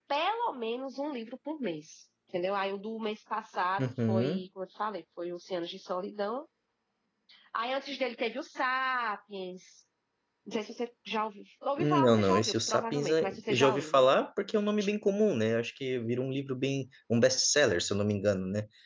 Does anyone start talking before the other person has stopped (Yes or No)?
Yes